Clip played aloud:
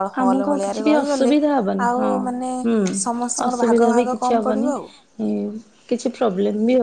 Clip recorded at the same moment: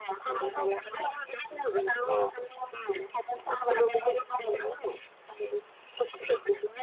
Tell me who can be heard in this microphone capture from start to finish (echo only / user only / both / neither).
echo only